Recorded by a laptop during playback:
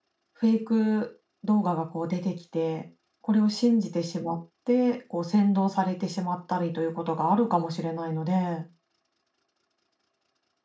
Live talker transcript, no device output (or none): フェイク動画がこう出てきて、これを信じてしまってこう扇動されてしまったりということがあるかもしれないので。